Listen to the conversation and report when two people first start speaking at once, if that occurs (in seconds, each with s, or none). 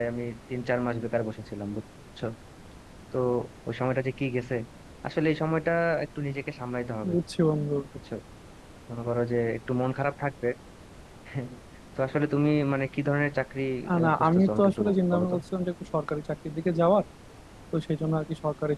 14.0 s